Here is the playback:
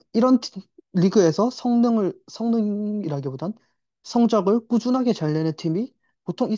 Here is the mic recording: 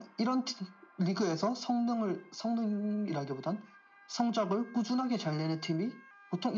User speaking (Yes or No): No